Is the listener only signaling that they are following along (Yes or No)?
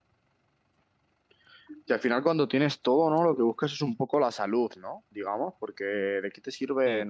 Yes